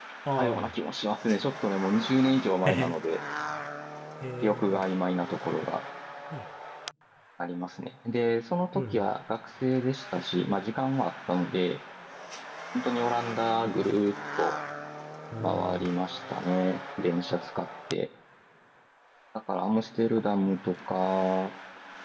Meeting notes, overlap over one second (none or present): none